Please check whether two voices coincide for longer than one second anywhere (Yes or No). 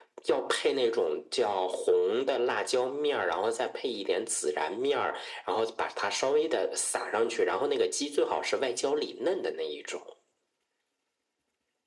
No